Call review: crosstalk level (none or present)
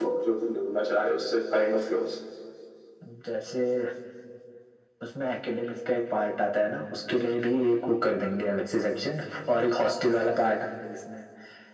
none